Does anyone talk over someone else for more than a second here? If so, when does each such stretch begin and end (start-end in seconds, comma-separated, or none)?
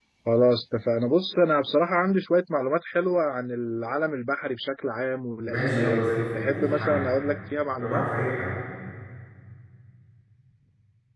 5.5-7.1